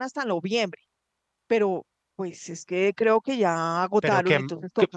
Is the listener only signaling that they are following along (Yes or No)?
No